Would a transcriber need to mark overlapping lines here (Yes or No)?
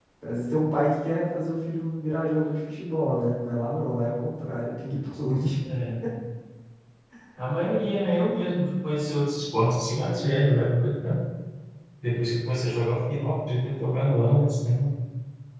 No